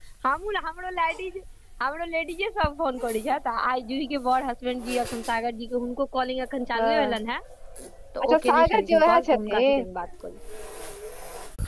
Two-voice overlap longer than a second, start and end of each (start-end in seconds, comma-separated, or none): 8.2-9.8